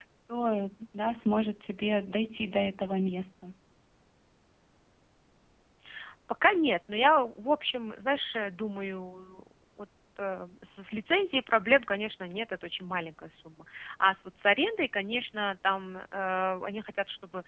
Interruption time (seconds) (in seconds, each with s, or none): none